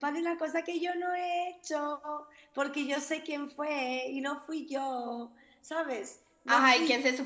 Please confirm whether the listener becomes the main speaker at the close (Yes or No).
Yes